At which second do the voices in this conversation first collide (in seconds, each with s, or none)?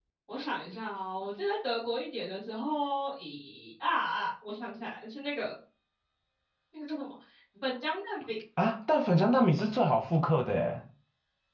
none